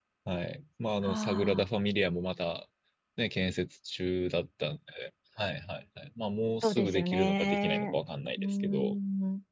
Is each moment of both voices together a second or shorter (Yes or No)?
No